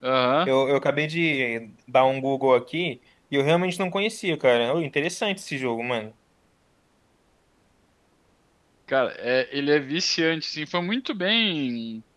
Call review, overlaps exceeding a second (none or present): none